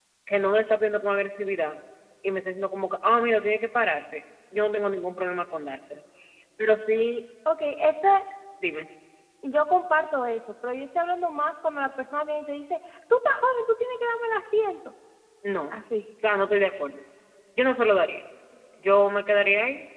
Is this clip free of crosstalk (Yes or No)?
Yes